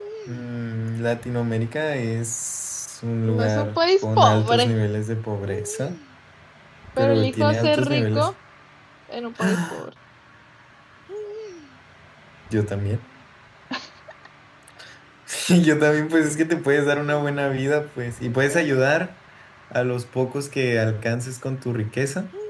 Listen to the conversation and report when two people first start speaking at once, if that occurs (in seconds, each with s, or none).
3.3 s